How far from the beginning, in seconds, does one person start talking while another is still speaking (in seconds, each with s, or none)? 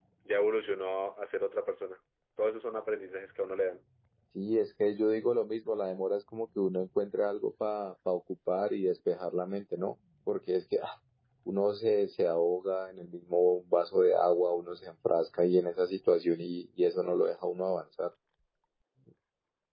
none